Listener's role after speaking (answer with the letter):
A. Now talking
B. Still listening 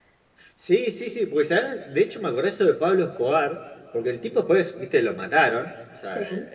B